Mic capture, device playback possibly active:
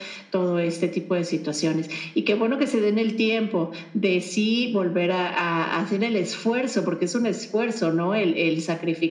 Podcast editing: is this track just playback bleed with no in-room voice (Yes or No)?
Yes